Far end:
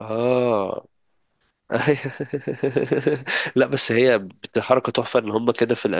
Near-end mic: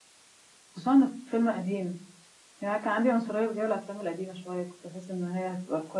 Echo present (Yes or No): No